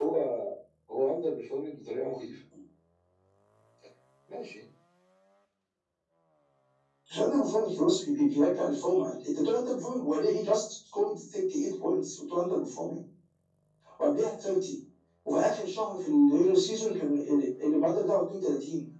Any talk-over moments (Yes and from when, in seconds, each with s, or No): No